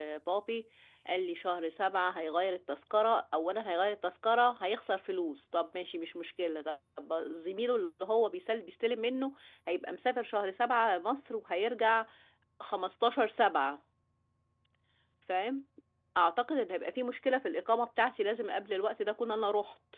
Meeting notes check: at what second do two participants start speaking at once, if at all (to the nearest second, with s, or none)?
none